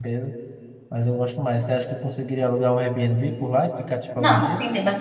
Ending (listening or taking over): taking over